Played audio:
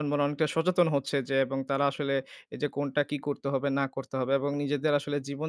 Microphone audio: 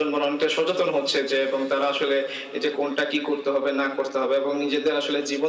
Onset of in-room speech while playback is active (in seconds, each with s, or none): none